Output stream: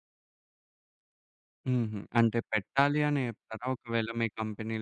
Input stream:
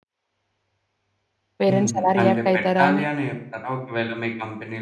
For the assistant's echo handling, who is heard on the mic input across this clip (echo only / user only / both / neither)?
both